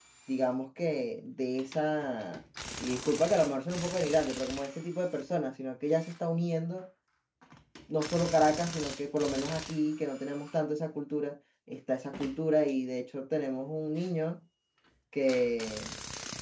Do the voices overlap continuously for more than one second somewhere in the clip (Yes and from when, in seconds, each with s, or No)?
No